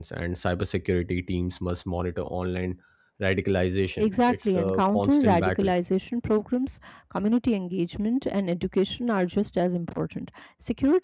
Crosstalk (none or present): present